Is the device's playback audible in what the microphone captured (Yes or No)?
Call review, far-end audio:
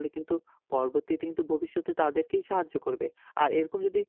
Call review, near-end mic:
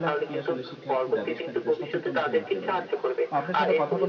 Yes